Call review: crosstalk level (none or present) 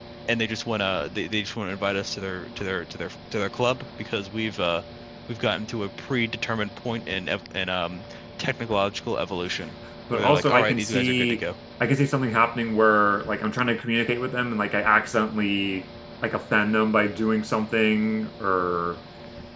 present